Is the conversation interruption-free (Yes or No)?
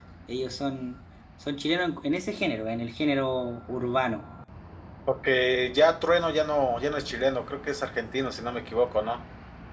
Yes